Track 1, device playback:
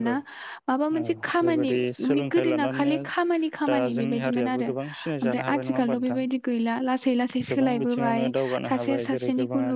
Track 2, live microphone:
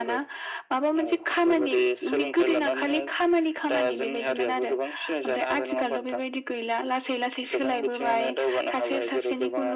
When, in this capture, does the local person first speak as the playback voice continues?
none

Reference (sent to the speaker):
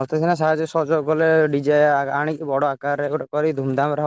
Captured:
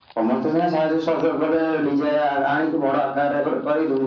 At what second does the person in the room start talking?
none

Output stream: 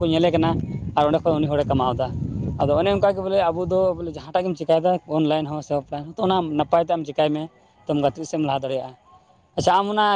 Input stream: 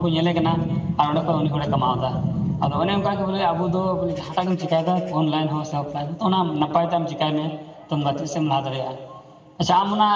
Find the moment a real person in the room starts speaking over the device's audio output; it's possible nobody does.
none

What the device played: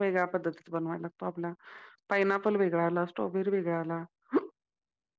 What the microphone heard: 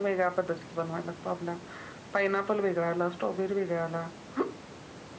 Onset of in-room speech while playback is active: none

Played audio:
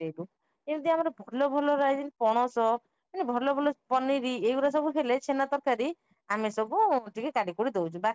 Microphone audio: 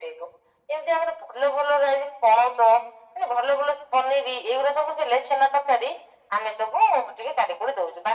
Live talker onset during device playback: none

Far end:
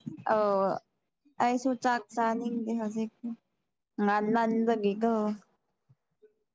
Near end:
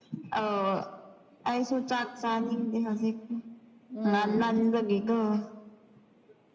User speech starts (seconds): 3.9 s

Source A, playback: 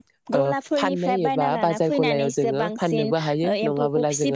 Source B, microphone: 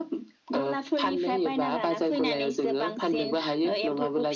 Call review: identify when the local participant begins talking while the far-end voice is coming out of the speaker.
none

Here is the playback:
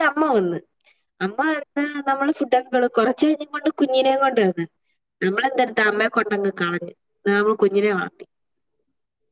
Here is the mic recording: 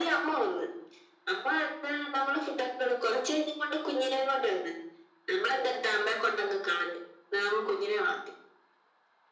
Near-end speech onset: none

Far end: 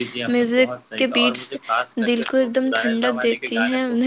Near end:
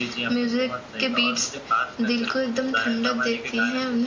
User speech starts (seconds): none

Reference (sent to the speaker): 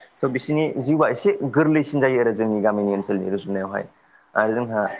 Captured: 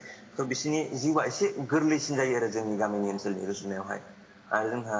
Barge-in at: none

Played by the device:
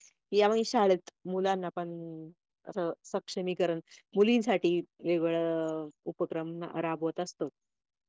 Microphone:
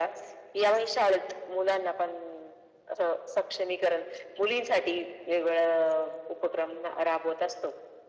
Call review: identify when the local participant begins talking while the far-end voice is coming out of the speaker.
none

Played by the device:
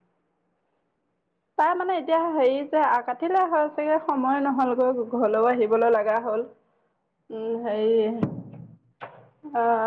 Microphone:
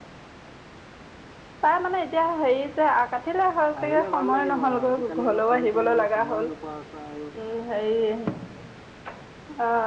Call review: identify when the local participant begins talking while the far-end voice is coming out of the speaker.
3.8 s

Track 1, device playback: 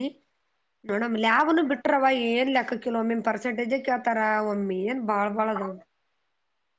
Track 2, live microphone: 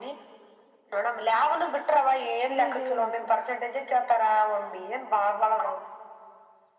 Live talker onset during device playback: 2.5 s

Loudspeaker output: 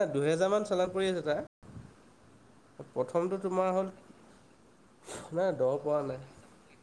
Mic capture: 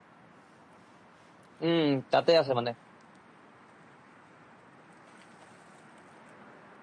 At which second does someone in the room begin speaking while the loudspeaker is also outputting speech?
1.7 s

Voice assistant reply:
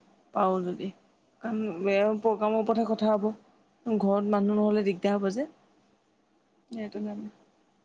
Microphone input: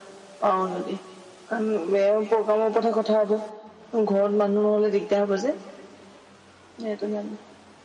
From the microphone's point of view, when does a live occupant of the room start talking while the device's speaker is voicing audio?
none

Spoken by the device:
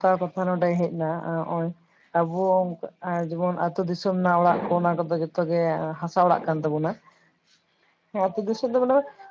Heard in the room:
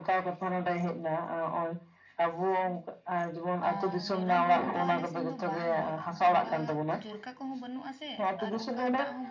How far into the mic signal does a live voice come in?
3.7 s

